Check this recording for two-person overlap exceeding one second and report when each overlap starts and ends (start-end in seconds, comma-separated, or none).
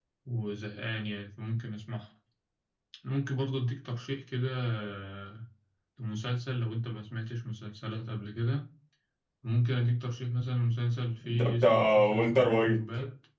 11.4-12.8